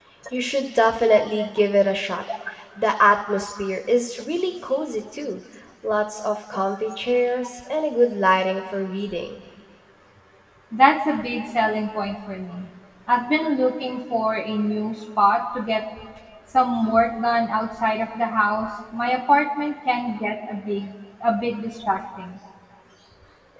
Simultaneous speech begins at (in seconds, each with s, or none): none